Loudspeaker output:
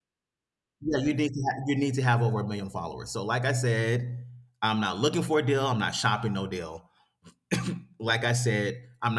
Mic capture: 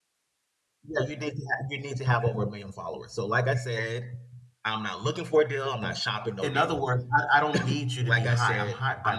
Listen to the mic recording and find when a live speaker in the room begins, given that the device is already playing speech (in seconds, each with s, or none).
6.4 s